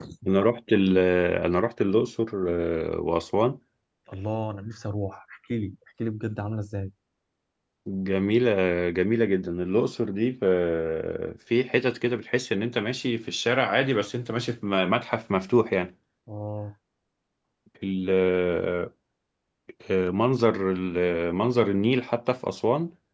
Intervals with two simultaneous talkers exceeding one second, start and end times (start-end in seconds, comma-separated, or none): none